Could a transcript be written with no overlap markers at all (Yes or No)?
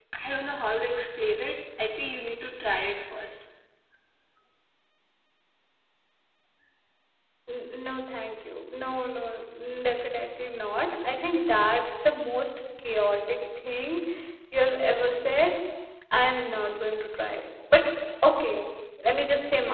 Yes